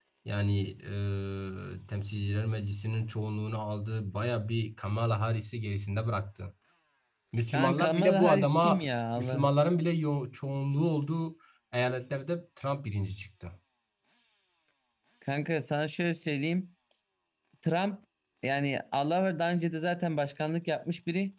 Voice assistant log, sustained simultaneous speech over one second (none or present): present